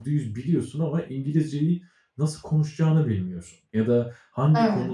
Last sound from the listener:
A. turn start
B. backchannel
B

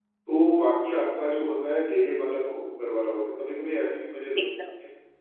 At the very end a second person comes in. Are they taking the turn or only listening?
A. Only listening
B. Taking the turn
A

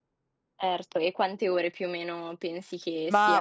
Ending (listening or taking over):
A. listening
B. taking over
B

